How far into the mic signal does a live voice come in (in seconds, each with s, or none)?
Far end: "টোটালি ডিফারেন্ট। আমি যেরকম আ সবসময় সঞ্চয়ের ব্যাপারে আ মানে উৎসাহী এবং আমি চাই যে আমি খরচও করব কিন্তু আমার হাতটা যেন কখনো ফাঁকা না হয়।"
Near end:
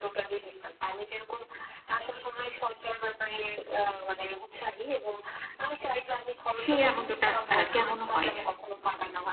6.6 s